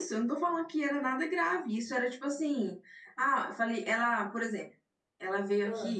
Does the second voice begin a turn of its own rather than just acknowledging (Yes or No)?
No